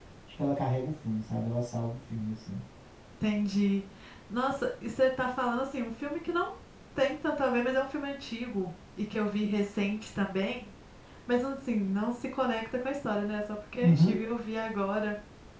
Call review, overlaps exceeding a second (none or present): none